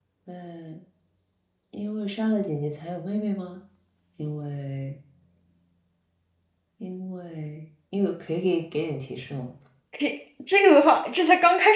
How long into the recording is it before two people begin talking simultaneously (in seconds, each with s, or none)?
none